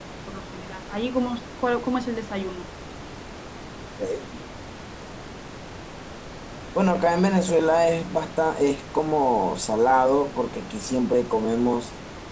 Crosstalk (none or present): none